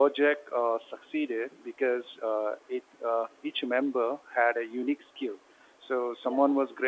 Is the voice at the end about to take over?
No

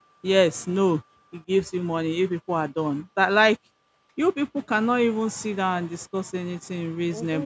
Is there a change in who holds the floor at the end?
Yes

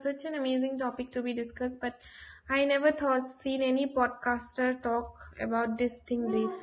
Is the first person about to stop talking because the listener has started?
Yes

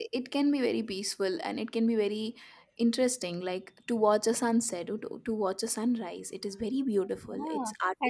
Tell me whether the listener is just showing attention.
No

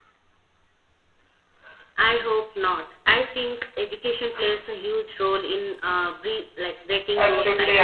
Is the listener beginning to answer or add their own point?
Yes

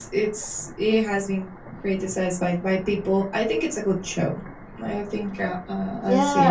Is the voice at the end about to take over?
Yes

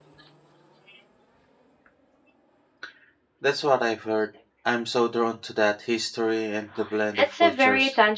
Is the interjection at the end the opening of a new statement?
Yes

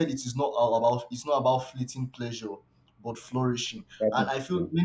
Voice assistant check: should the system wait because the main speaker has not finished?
Yes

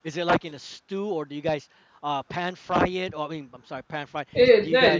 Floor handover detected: Yes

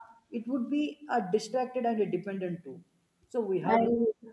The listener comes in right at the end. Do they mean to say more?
No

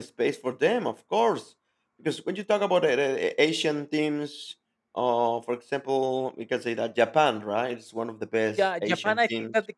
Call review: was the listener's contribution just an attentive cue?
No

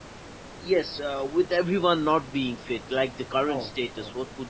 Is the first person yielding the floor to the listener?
Yes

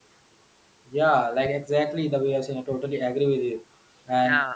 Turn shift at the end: No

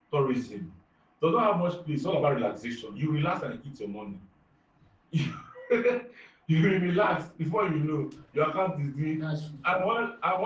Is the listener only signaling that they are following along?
Yes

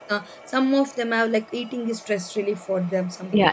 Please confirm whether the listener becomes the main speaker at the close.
Yes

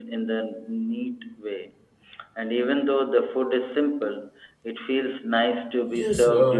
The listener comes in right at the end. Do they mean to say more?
Yes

